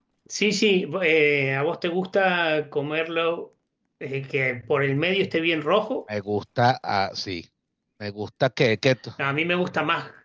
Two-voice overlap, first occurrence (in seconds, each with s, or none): none